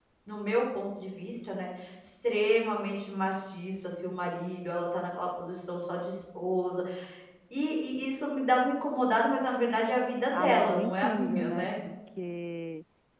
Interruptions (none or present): present